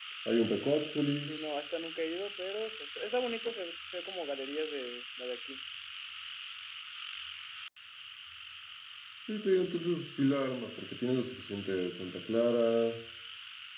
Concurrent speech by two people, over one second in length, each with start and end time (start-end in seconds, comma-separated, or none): none